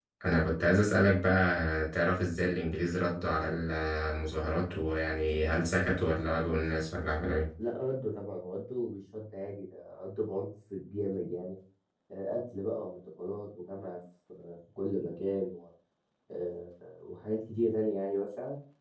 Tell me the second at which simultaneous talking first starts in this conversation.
none

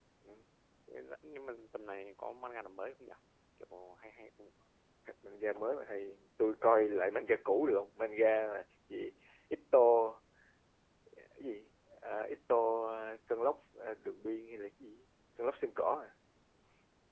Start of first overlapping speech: none

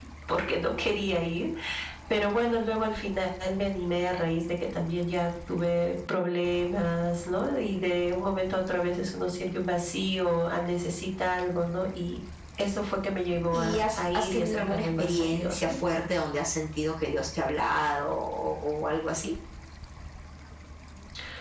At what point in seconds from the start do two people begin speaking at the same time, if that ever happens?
13.5 s

